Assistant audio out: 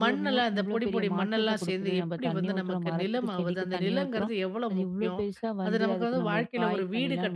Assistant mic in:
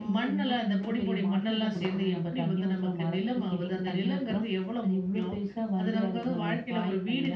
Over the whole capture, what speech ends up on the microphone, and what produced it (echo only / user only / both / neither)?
echo only